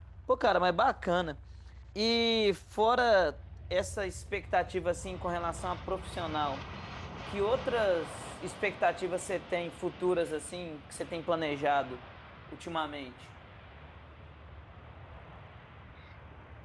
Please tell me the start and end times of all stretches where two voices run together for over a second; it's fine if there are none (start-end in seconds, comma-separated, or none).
none